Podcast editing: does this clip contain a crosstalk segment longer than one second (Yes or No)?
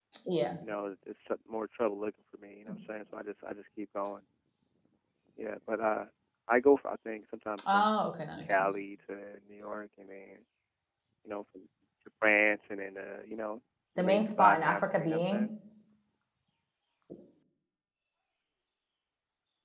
Yes